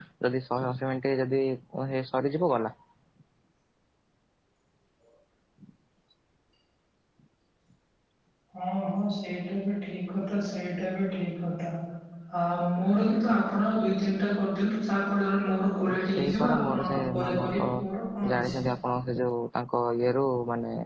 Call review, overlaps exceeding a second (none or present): present